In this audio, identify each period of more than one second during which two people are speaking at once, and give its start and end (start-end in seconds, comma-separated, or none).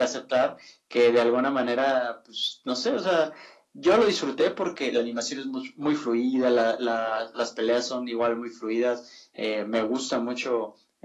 none